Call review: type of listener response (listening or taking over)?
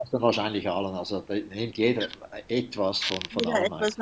taking over